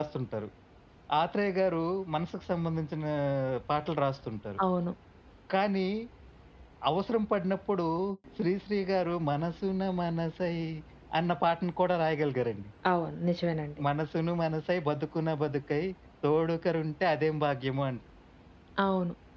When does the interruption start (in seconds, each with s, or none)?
none